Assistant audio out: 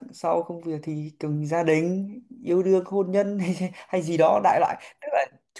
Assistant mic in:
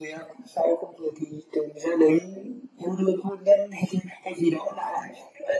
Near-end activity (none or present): none